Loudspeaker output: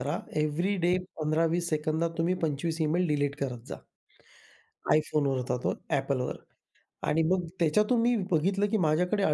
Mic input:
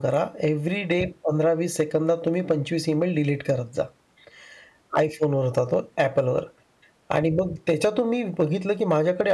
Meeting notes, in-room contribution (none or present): none